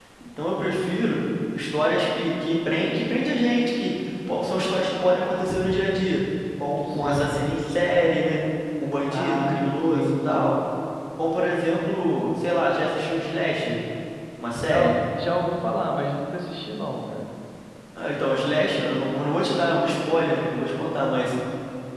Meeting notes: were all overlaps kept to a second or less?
No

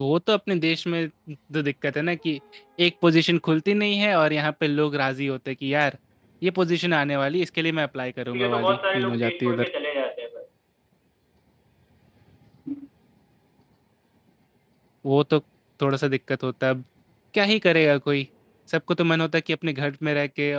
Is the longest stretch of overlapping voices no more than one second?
No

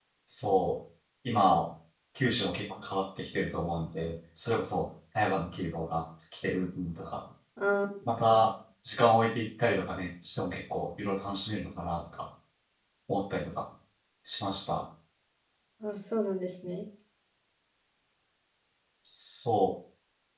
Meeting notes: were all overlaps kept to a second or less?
Yes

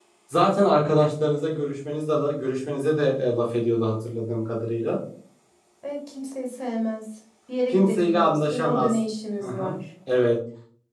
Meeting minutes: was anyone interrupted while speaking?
Yes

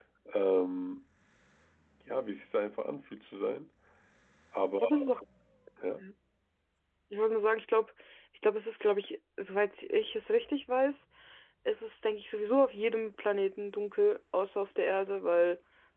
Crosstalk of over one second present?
No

